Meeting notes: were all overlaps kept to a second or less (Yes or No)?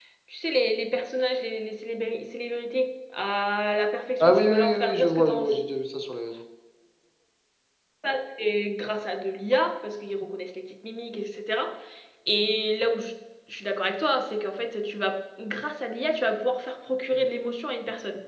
No